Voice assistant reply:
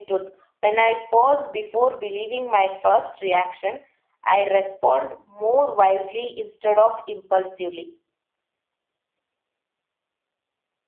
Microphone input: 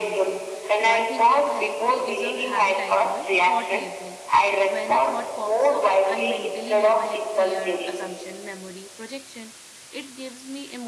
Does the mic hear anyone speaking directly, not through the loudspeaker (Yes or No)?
Yes